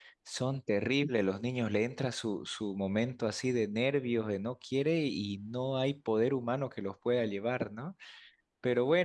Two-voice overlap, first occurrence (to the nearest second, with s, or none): none